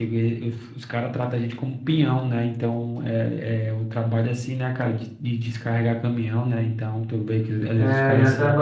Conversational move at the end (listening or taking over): taking over